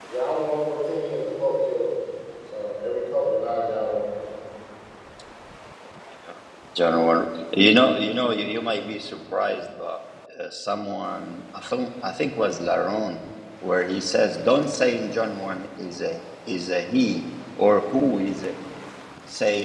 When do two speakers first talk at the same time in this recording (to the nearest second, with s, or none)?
none